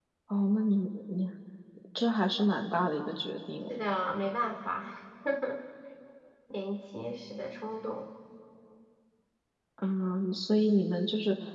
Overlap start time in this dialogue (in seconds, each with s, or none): none